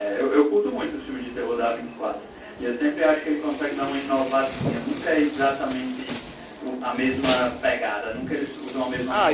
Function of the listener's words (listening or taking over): taking over